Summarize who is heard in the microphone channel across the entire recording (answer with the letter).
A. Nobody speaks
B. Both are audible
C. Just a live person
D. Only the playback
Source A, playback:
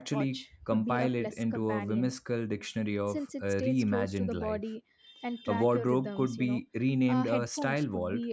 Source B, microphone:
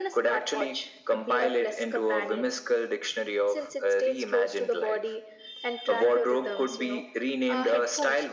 D